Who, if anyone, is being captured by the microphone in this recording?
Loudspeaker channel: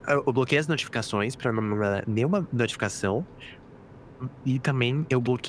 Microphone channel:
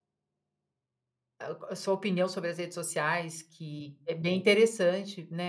user only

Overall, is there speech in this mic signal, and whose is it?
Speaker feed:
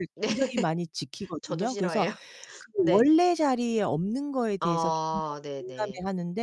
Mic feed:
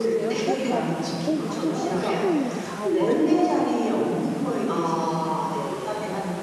both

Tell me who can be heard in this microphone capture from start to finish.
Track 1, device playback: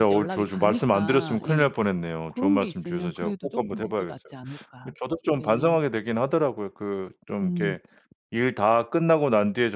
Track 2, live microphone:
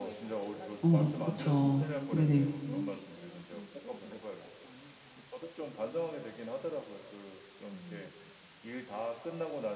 both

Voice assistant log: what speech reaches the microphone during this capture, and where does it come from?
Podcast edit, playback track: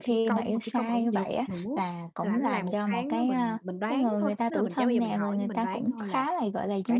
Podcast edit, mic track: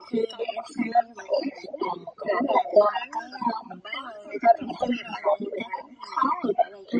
echo only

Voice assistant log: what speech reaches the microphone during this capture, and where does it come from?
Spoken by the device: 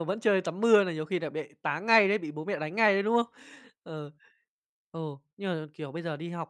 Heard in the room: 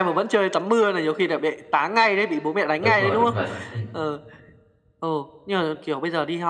both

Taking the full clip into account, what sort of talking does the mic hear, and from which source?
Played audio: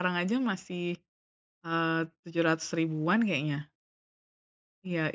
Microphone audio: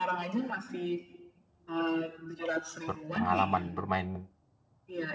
both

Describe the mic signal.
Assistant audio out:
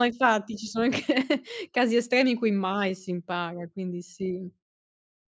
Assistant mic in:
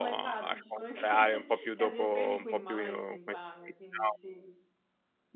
both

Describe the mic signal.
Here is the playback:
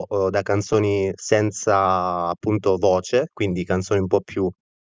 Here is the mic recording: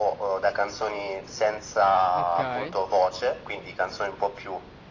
both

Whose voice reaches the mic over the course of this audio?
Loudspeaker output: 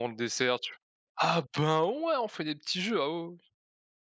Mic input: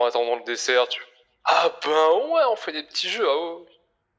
echo only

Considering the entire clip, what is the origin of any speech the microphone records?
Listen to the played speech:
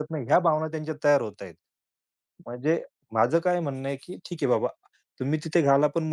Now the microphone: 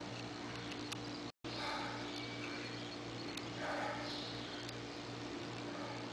neither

